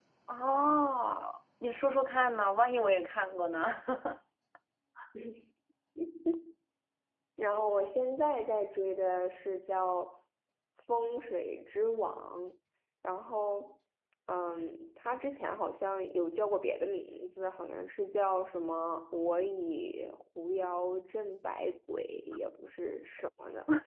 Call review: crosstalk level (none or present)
none